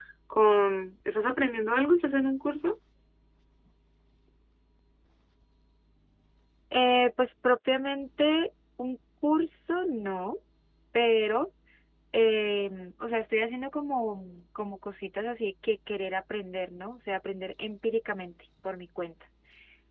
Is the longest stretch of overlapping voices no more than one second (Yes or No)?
Yes